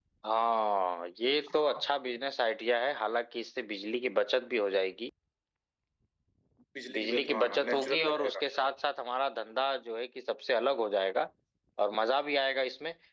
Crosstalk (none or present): present